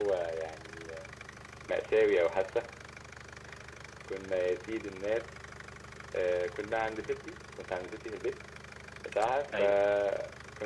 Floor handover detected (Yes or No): No